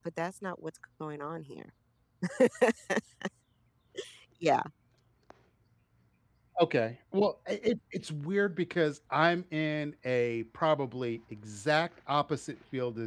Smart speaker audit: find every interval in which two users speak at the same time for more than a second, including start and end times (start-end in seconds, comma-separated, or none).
none